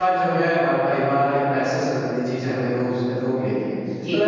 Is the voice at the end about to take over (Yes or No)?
No